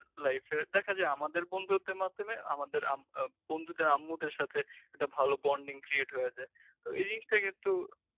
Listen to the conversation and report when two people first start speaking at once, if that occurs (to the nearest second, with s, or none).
none